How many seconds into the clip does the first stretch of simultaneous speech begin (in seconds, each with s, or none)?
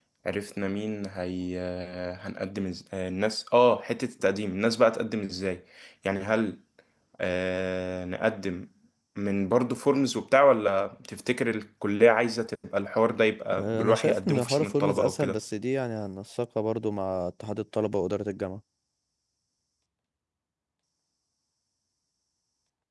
13.5 s